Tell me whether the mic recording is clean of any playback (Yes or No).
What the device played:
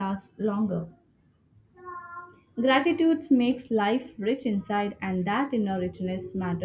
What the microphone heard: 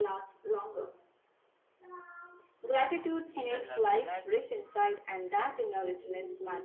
No